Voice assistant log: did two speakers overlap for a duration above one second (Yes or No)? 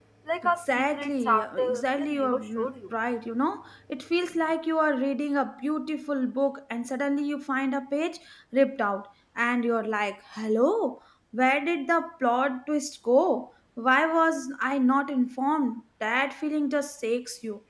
Yes